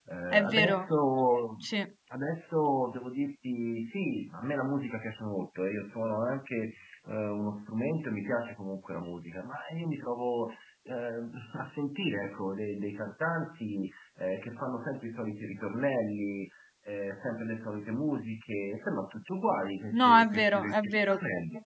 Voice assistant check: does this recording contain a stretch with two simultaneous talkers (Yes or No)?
Yes